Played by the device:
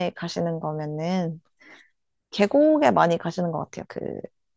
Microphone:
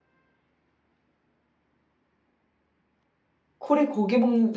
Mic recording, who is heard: user only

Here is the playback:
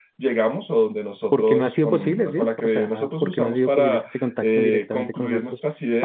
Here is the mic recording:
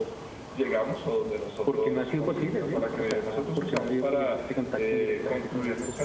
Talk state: echo only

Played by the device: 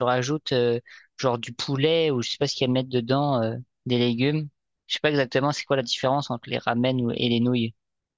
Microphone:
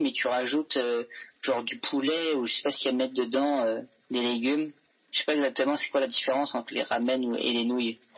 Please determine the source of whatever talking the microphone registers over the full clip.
echo only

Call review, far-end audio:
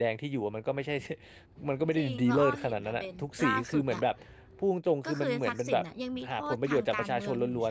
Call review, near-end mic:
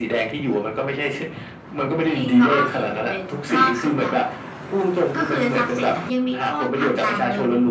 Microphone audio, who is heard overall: echo only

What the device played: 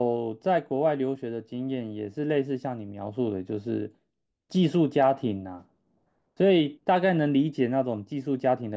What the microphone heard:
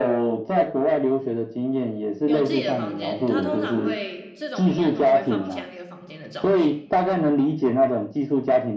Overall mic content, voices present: both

